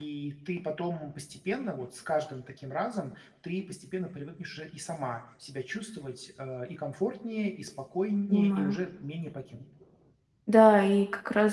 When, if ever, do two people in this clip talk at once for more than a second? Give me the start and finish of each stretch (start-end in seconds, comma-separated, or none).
none